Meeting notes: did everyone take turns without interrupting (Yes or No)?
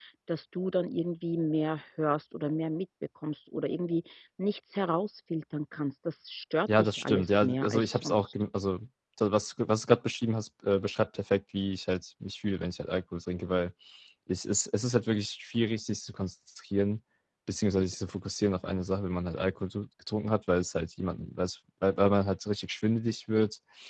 No